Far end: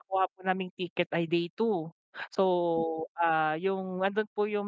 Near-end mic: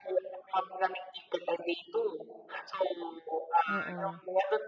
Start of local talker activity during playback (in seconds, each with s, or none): 3.7 s